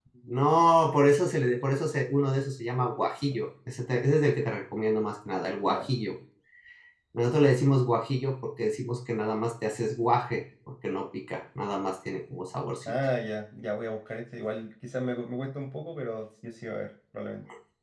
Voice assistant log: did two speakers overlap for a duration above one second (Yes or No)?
No